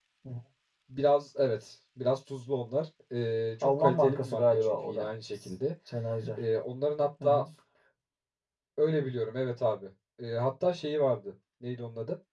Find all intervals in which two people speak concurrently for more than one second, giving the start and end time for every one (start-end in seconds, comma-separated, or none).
3.6-5.1